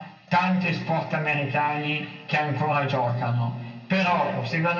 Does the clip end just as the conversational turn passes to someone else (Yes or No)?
No